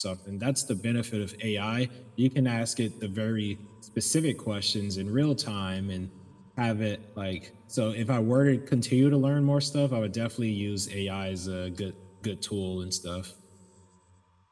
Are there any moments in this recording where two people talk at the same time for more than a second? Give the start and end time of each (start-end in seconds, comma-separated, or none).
none